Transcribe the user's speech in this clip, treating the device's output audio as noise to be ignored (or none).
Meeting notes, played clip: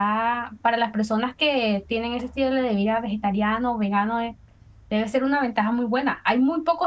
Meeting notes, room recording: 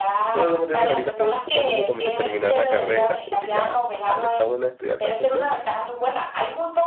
Porque como te dije, ahorita estoy enfocándome como en terminar la carrera, porque ya, ajá, ya está bueno estudiar tanto tiempo.